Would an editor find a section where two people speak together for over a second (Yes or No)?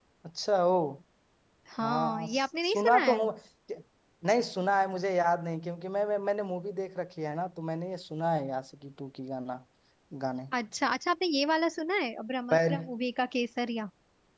Yes